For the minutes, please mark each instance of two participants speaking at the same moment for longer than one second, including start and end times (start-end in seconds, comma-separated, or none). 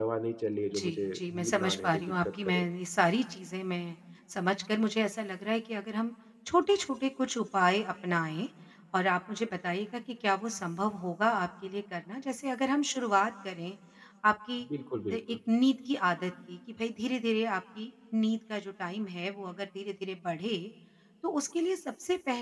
0.8-2.6